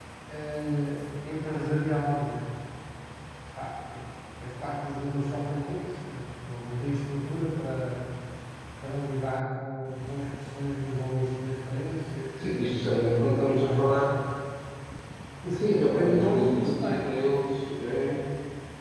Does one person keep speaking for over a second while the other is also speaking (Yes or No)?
Yes